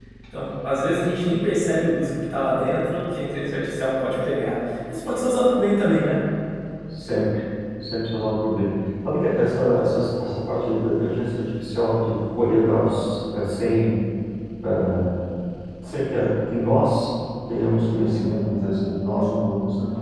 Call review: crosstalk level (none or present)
none